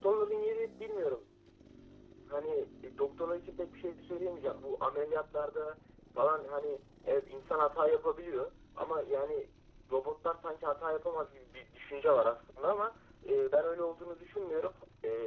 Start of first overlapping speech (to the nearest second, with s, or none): none